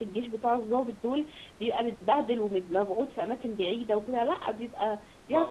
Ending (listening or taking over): taking over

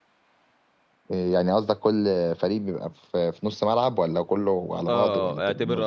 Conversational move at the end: taking over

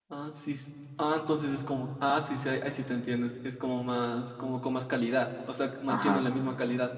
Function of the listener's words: listening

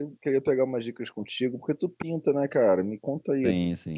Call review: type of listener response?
listening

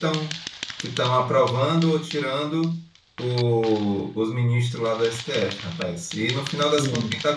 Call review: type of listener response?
listening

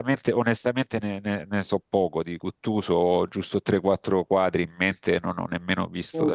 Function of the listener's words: listening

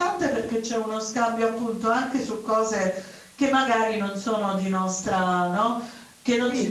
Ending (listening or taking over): listening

